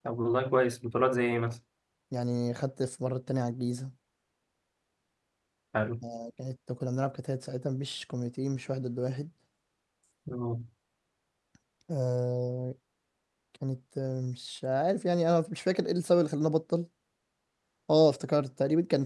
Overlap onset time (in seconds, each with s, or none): none